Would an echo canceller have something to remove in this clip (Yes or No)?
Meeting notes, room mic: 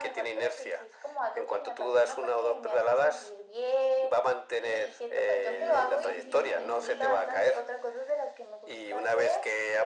Yes